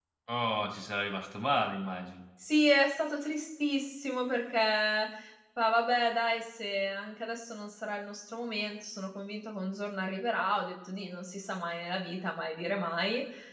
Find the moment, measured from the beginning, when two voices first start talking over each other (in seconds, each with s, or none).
none